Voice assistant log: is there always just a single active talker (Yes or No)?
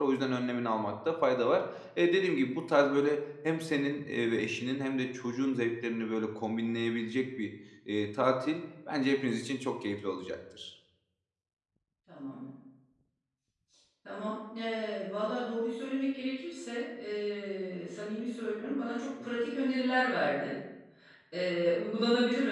Yes